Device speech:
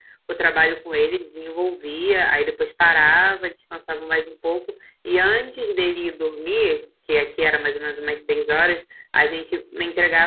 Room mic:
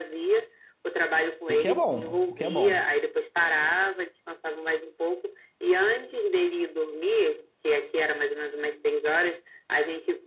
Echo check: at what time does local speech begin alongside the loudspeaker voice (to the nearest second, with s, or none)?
1 s